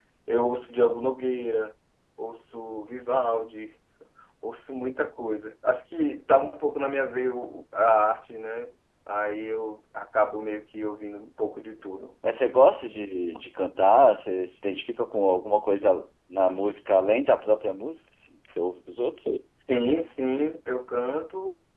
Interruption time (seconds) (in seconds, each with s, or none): none